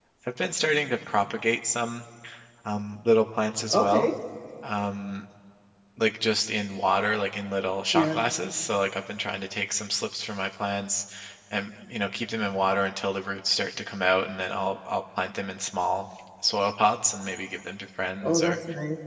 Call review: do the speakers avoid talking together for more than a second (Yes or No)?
Yes